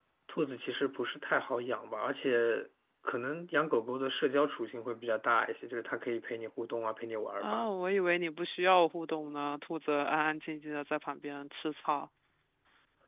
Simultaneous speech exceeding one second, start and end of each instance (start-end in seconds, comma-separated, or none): none